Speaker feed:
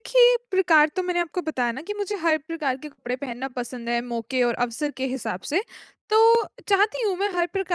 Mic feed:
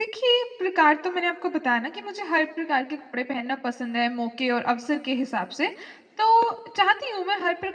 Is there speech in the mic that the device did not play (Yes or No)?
No